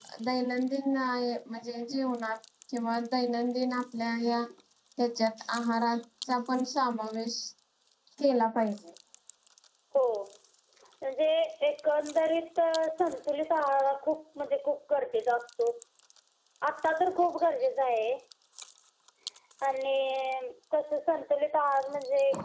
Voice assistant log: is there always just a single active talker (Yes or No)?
Yes